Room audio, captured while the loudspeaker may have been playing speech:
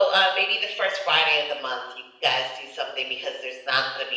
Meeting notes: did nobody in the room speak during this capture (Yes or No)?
Yes